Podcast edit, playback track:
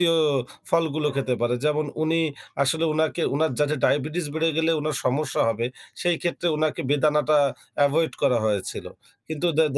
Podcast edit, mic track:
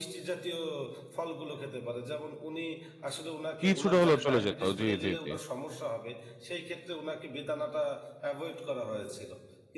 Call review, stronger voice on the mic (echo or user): user